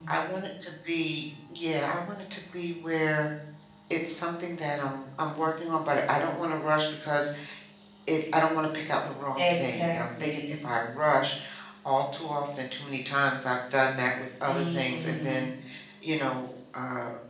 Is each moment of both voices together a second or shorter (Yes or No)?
No